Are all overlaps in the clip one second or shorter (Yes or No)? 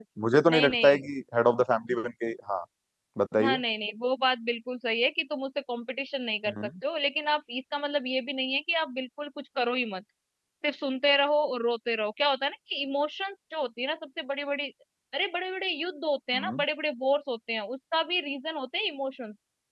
Yes